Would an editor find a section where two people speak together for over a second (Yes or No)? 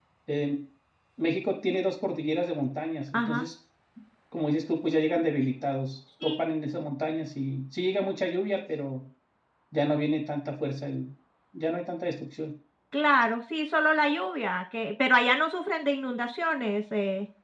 No